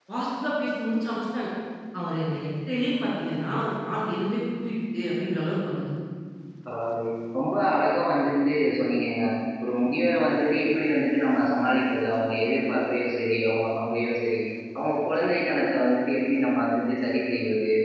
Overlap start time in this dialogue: none

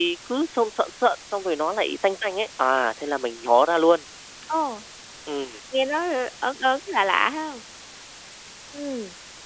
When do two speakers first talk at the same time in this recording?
none

